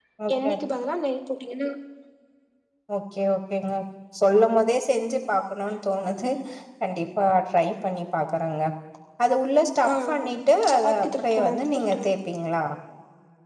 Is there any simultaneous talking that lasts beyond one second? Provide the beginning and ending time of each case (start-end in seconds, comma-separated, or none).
10.7-12.1